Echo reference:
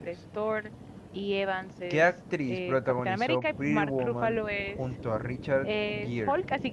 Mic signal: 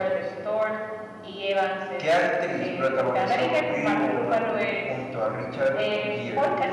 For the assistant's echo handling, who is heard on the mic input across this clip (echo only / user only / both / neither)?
echo only